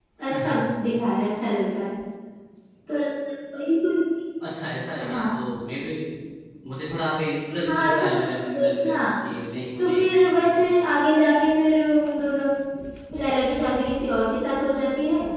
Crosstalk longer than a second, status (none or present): present